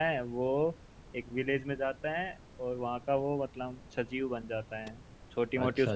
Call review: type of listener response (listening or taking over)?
listening